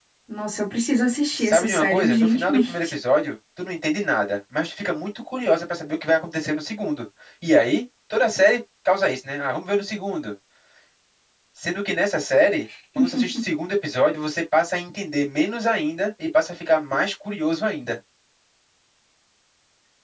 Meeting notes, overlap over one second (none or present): present